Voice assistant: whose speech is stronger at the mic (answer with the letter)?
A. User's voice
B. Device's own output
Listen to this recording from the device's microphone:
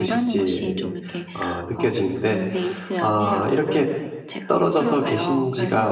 A